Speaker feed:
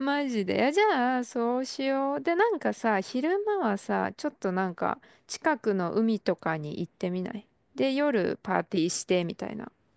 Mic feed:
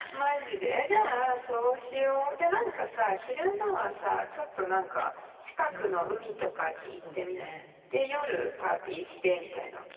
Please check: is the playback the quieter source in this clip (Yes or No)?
No